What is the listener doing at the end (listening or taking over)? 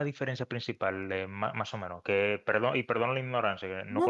taking over